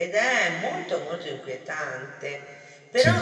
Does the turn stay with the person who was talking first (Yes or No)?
Yes